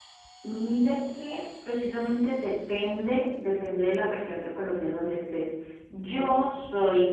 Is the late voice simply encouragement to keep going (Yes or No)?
Yes